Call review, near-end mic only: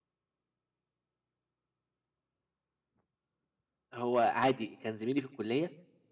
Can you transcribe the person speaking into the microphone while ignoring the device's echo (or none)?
هو عادي كان زميلي في الكُلّية